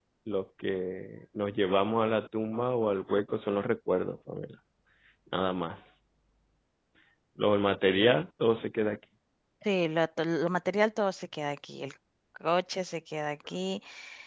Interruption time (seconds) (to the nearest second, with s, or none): none